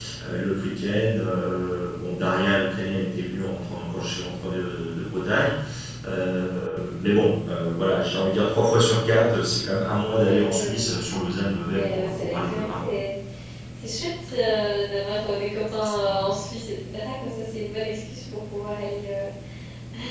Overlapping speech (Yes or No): Yes